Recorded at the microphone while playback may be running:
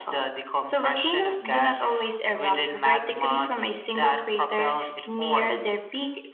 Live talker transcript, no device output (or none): none